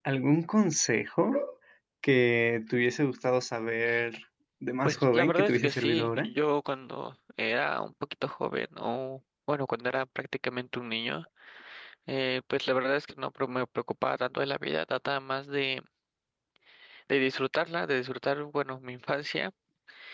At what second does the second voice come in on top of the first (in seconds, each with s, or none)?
4.8 s